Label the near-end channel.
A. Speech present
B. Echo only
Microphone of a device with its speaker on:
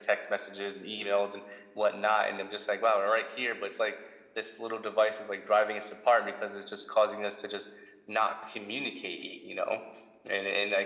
B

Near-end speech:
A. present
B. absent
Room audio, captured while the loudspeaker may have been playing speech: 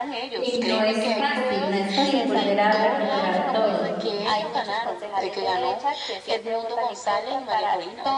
A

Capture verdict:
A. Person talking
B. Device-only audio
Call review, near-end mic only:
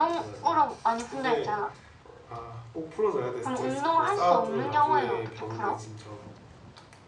A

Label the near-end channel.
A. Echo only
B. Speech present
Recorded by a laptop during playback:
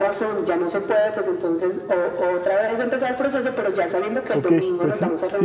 B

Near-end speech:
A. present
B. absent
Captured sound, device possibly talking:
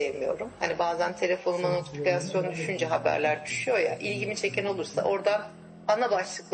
A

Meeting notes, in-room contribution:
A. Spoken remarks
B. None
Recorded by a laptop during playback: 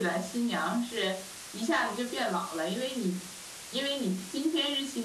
B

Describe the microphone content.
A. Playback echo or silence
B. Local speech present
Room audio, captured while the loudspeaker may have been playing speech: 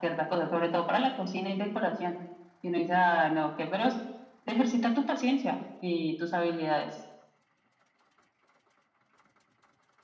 A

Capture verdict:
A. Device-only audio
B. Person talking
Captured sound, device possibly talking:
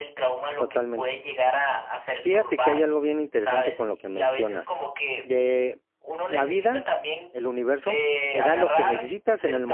B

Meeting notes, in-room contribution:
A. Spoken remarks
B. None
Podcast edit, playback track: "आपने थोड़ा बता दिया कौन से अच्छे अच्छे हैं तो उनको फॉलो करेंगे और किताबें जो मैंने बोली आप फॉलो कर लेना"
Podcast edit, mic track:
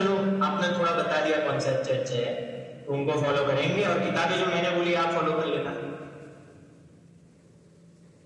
B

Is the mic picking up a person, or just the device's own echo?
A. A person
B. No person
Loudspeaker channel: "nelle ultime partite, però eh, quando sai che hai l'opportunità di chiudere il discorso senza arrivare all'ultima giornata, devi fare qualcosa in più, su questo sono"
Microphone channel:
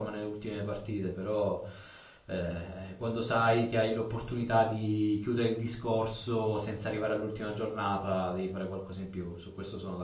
B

